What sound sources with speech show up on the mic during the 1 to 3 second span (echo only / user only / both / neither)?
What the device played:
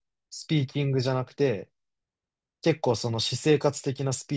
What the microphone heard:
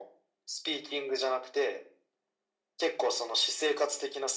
echo only